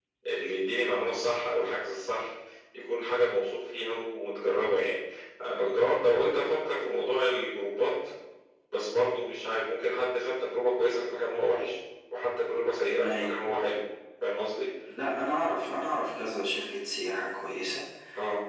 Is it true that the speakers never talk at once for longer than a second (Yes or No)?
Yes